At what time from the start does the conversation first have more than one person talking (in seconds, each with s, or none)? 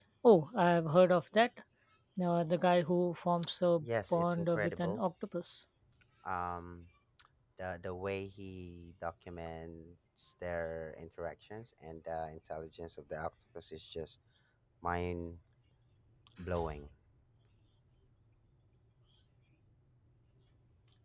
3.8 s